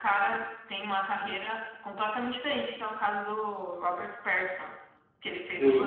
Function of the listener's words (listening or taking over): taking over